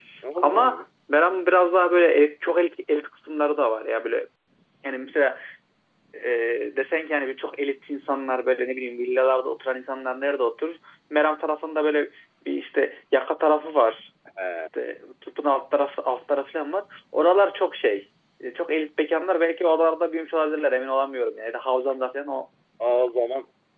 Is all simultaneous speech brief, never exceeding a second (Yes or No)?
Yes